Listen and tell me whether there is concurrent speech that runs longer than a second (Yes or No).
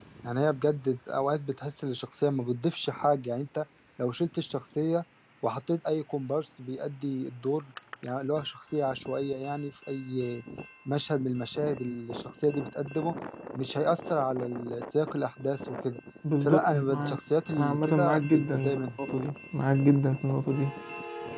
Yes